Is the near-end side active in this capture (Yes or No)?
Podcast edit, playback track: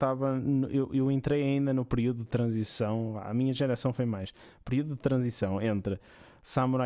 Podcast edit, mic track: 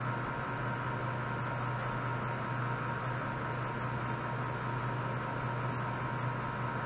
No